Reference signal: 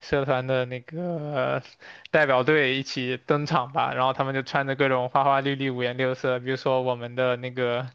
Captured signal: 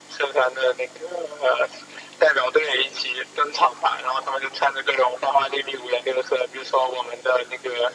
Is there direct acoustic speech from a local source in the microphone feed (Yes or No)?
No